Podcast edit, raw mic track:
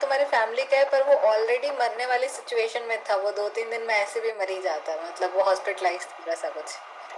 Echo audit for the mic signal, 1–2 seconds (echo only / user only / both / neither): echo only